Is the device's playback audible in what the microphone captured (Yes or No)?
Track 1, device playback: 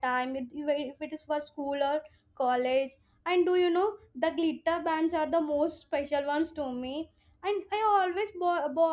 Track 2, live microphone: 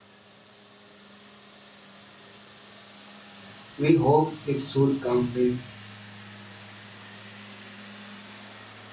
No